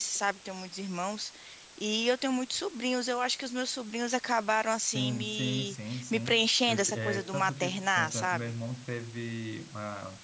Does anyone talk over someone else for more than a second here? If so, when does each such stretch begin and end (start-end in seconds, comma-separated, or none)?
4.7-8.5